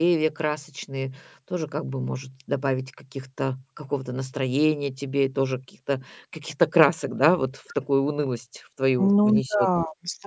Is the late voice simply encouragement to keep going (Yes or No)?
No